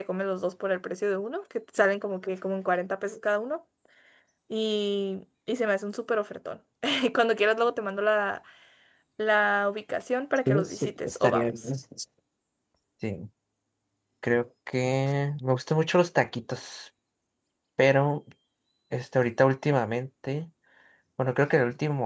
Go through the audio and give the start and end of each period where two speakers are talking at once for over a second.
10.5-11.7

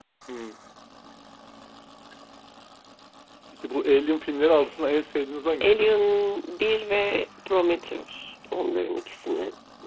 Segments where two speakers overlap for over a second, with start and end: none

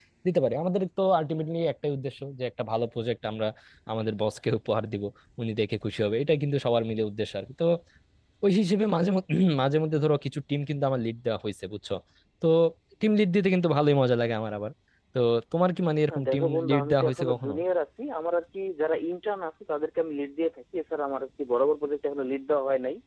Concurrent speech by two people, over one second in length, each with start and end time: 16.1-17.5

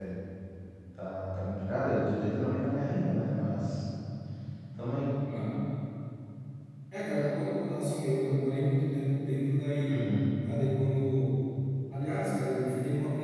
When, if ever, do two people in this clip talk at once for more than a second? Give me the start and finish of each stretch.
none

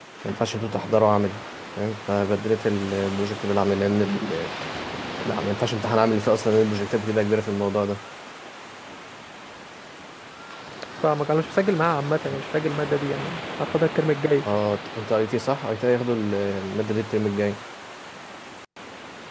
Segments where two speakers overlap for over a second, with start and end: none

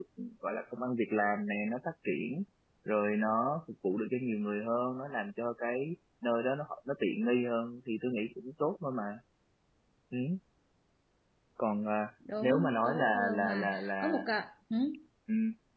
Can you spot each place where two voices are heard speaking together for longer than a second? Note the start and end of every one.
12.4-14.2

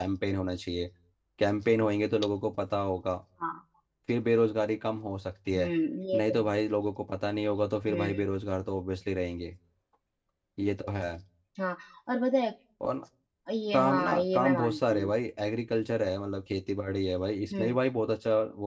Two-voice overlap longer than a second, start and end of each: 13.7-15.1

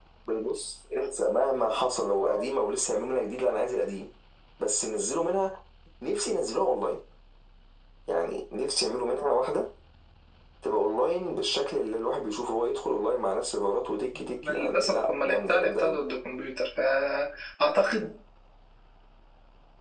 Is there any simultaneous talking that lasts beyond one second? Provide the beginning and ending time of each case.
14.5-16.0

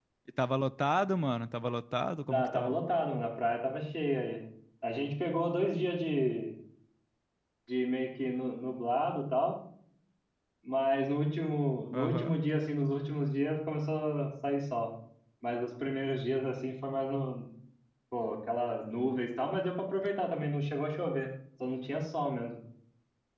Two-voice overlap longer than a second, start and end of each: none

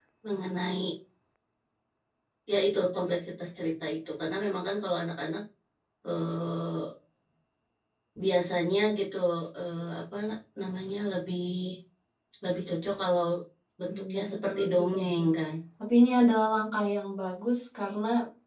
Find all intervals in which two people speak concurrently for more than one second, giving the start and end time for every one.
13.9-15.3

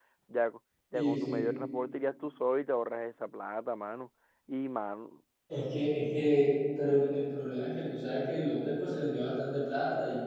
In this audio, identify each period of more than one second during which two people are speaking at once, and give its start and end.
none

